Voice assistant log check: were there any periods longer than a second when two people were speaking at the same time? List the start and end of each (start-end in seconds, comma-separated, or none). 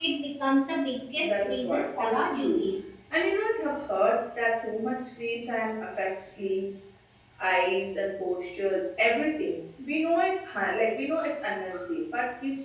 1.2-2.6